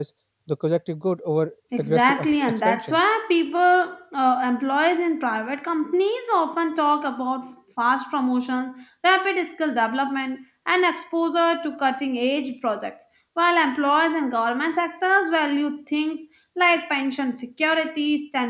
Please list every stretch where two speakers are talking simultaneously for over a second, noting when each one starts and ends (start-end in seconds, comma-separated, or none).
1.8-3.0